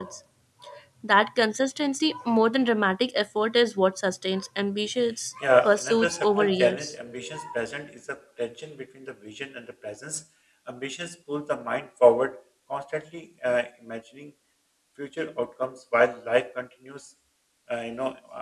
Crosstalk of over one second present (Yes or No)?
Yes